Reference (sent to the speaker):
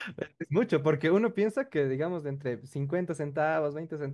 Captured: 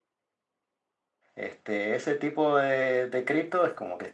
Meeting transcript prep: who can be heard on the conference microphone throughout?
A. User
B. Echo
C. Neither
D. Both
A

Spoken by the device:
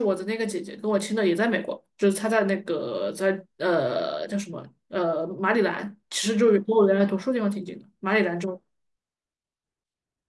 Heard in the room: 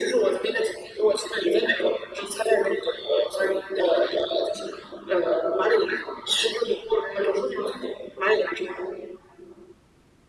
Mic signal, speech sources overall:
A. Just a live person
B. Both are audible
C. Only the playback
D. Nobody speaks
C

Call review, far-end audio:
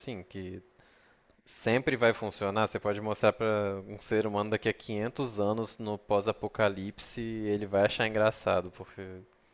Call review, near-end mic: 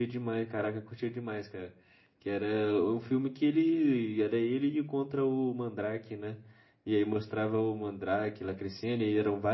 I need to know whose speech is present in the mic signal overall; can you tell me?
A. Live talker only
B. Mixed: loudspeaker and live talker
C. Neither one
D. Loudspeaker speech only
A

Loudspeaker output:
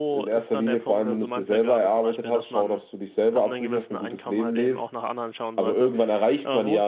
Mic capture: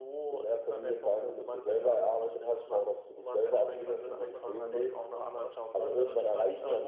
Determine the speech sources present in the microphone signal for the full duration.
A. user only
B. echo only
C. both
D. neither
C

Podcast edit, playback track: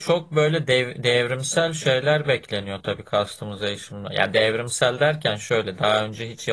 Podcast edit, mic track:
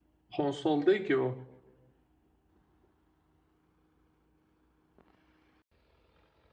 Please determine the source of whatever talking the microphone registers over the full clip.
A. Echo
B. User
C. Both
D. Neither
B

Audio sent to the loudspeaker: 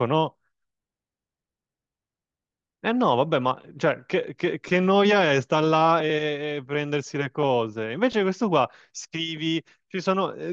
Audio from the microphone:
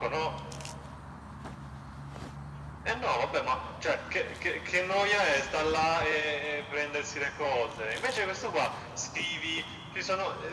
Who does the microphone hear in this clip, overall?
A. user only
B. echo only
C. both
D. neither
B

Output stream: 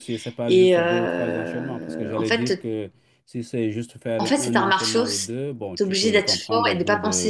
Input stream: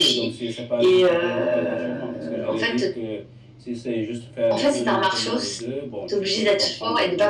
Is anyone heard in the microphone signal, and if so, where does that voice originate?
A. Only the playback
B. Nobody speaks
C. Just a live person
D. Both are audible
A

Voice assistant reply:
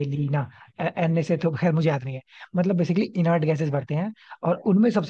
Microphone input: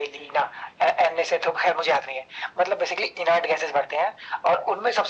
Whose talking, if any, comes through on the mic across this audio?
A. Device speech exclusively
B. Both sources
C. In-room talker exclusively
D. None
A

